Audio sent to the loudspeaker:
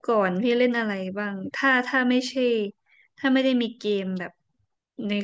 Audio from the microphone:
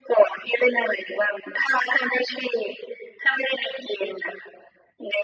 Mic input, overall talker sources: echo only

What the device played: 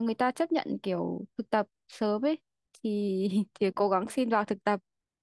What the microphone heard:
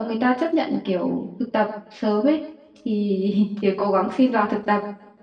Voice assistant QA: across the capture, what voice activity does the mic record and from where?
echo only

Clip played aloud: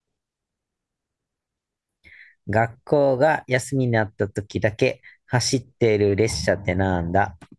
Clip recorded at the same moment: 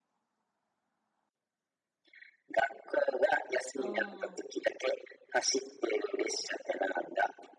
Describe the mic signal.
both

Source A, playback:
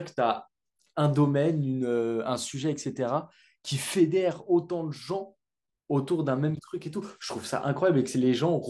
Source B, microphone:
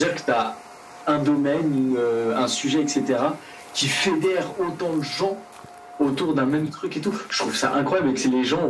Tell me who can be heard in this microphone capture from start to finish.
echo only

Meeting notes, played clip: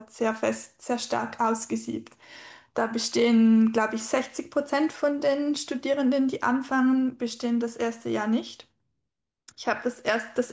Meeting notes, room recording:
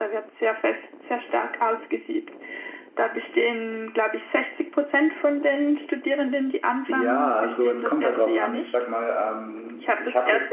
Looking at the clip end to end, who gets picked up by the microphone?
both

